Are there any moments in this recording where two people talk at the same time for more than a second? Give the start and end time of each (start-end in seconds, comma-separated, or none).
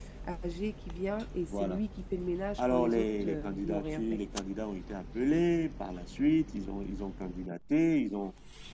2.6-4.2